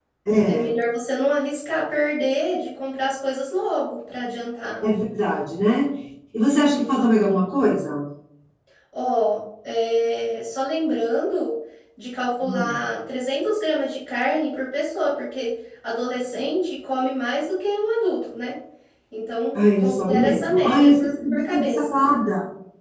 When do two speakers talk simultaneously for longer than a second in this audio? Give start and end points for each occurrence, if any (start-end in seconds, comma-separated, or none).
19.5-22.0